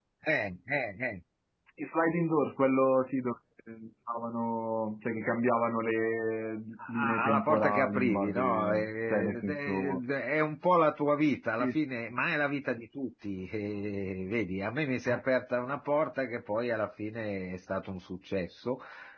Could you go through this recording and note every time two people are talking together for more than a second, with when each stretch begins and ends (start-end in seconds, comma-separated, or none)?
6.9-10.0